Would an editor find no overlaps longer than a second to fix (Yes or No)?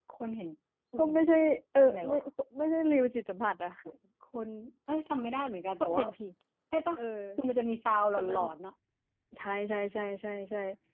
Yes